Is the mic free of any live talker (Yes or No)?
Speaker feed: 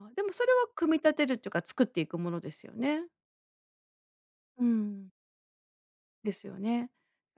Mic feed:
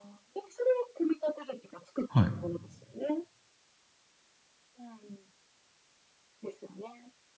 No